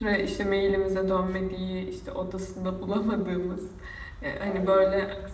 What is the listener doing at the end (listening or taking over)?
listening